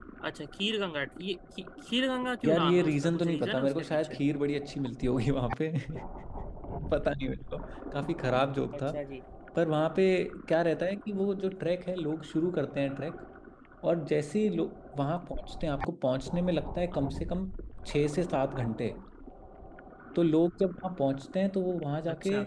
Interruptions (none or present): present